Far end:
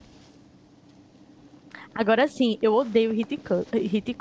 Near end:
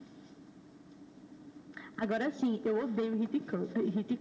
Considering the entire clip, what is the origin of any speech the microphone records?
echo only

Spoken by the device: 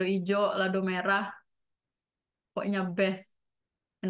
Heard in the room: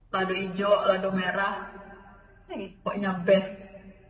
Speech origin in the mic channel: both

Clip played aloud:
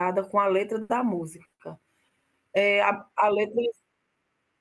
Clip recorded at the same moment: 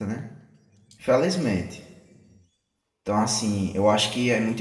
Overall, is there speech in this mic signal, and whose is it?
user only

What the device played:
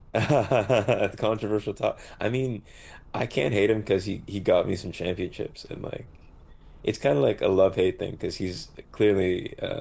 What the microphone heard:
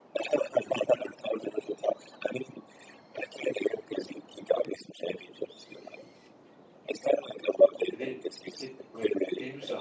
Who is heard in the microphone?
both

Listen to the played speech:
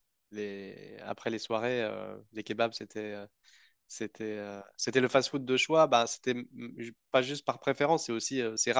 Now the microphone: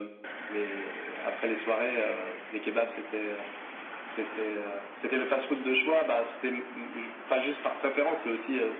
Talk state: echo only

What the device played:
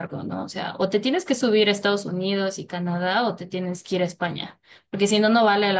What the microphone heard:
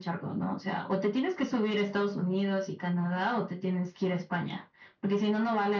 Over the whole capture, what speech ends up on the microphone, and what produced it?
echo only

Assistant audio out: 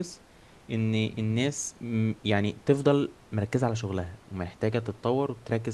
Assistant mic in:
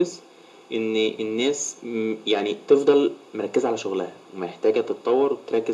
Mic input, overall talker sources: echo only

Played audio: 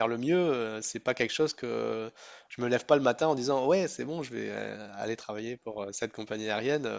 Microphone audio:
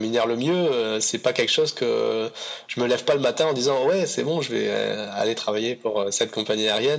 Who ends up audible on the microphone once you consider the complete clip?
echo only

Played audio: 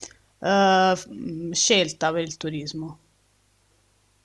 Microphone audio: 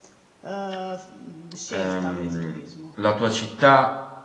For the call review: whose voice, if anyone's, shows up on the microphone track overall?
both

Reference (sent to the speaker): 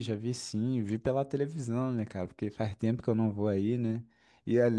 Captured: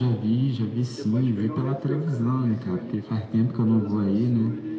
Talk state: both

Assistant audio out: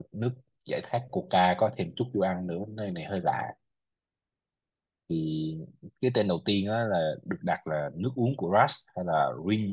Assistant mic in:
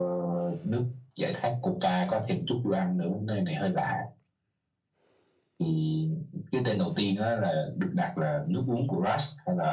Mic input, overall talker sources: echo only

